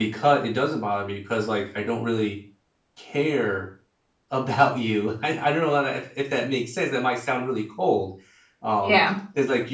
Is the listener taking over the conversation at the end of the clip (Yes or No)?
No